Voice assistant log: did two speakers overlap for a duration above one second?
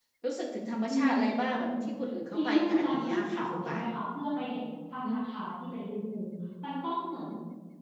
Yes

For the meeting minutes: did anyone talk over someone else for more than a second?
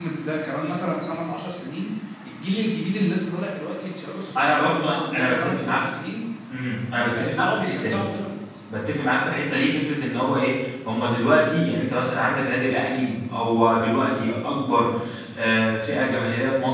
Yes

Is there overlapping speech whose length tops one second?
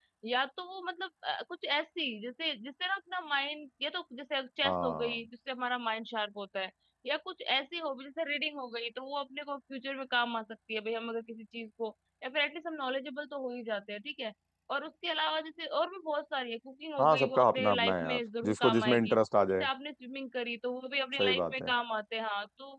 Yes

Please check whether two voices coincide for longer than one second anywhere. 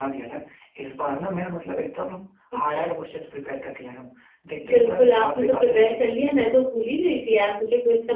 Yes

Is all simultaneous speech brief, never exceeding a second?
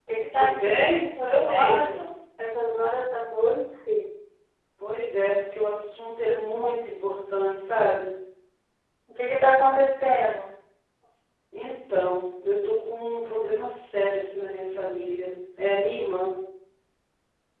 No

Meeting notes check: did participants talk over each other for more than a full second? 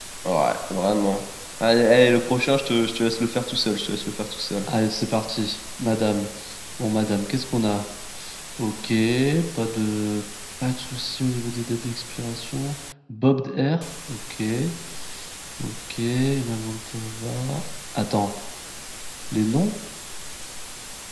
No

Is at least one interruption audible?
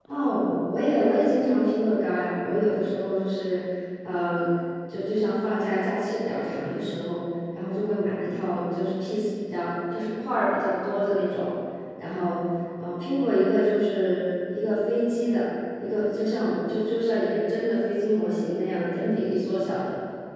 No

